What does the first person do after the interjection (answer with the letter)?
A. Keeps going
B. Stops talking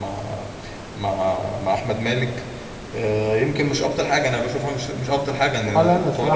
B